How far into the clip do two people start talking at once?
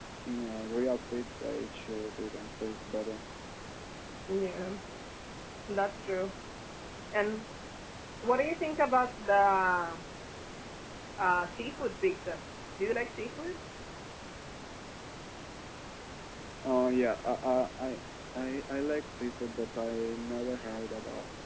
none

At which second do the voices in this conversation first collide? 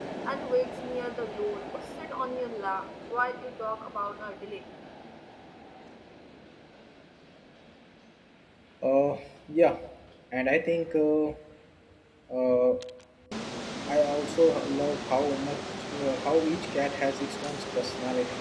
none

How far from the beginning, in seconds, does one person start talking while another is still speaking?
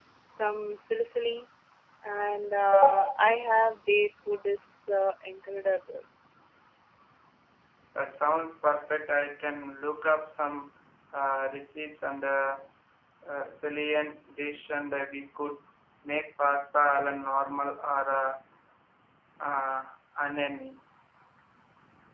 none

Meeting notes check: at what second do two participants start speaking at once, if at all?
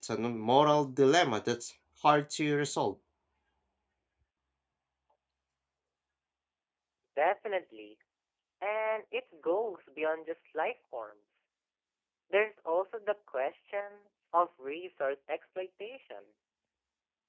none

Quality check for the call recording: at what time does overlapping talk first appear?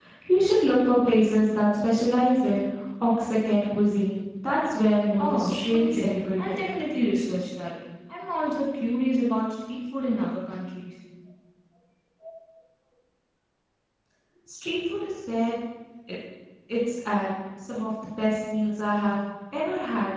5 s

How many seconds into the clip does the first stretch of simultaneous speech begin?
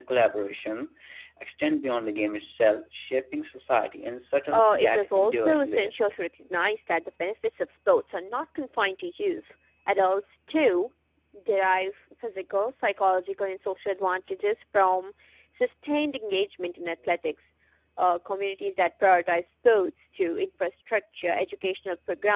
5 s

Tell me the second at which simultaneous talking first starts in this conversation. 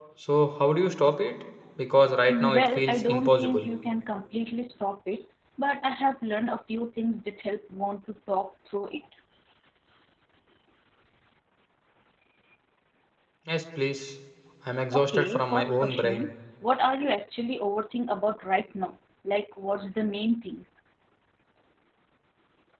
2 s

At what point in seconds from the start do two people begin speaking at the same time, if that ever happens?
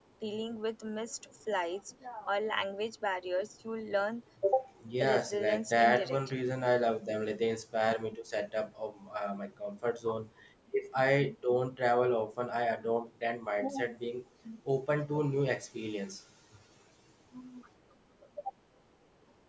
5 s

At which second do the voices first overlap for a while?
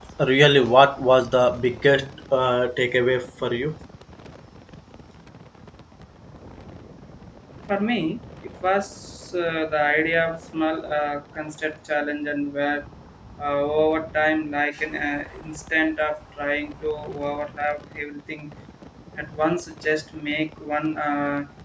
none

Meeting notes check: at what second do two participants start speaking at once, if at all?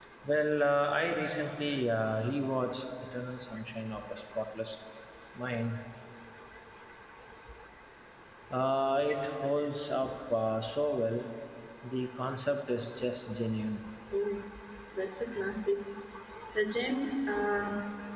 none

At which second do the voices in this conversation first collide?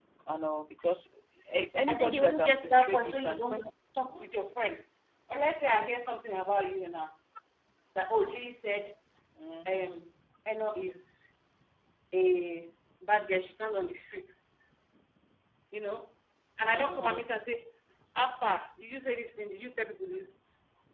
2 s

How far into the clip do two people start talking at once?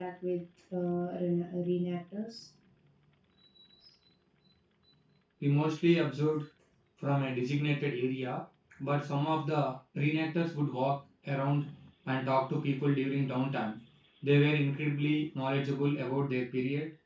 none

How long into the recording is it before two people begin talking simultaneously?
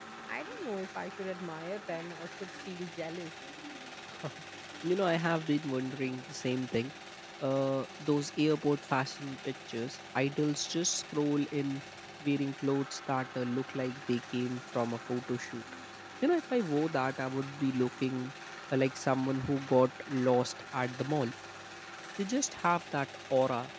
none

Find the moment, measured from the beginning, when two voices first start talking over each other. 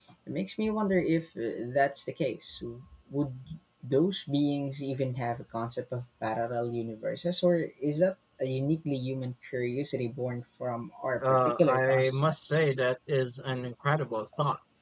11 s

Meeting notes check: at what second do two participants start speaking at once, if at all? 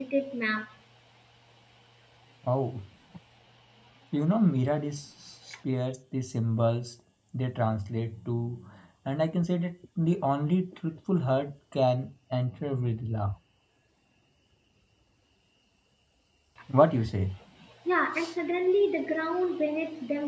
none

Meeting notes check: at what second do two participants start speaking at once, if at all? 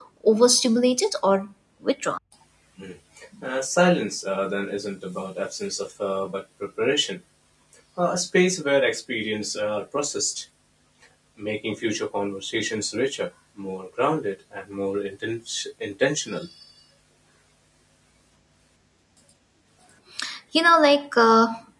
none

